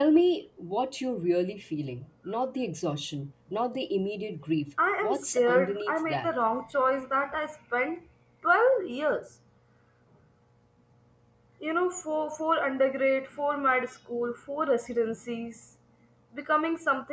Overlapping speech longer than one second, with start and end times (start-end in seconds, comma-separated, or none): 5.0-6.3